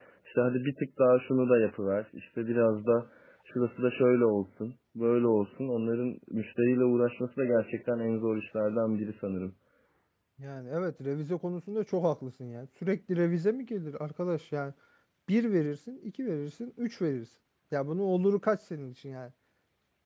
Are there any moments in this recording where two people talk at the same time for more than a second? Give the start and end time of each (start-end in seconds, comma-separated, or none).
none